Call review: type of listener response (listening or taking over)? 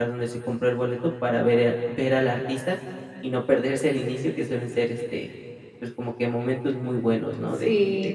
taking over